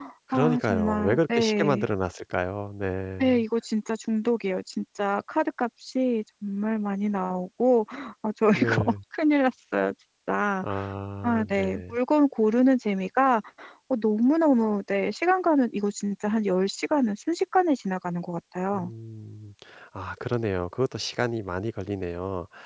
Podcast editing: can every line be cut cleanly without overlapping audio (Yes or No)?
No